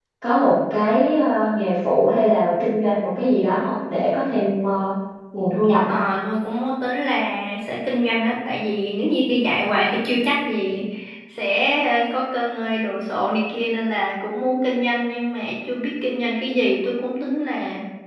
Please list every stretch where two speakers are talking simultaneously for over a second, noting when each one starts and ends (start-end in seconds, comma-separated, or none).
none